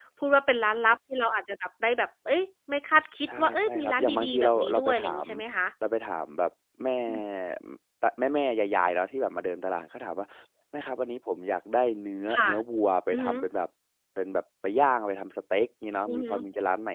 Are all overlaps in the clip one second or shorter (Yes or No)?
No